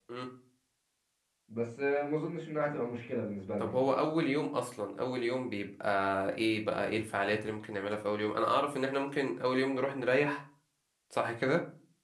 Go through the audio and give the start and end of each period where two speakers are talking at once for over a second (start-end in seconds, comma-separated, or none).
none